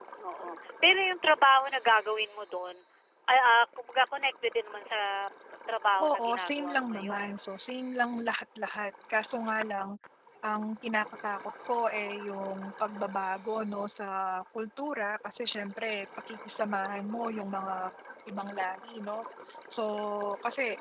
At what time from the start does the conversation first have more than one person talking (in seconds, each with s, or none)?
6.0 s